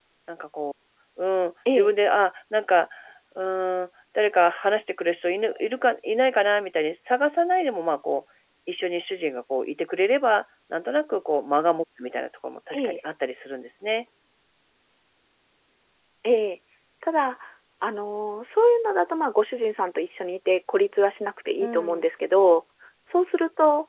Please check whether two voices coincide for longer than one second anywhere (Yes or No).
No